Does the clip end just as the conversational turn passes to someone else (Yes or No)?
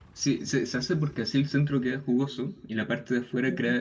No